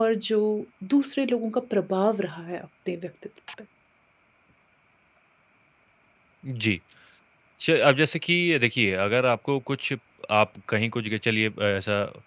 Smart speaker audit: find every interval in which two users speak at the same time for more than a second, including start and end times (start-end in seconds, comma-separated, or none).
none